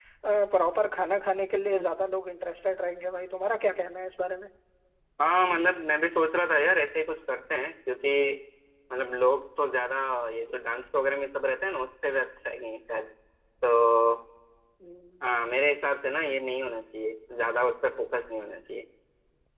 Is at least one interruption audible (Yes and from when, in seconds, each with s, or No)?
No